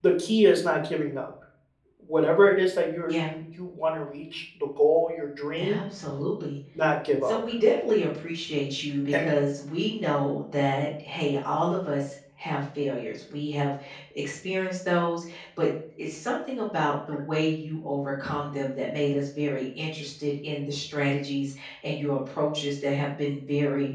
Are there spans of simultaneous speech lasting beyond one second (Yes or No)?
No